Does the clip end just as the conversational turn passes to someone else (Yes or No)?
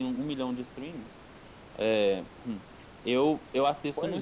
Yes